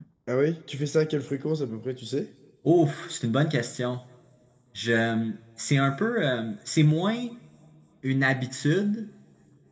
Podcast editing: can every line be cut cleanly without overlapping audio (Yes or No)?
Yes